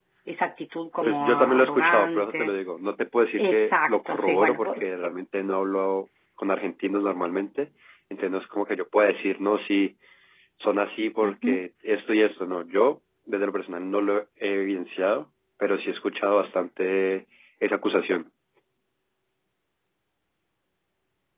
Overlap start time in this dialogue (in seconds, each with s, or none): 1.0 s